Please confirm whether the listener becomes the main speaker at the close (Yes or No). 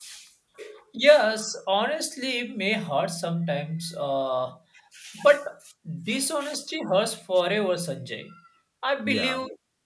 No